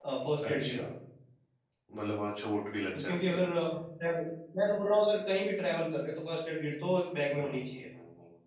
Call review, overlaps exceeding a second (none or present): none